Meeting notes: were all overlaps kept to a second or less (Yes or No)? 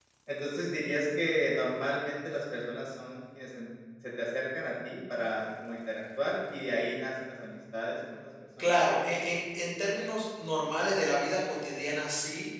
Yes